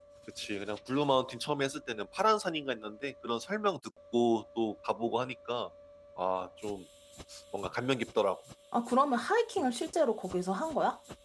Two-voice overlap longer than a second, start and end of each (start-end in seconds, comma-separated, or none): none